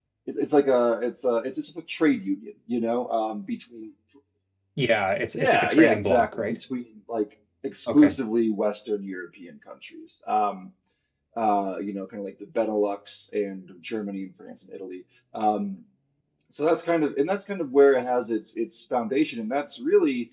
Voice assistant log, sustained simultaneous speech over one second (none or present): present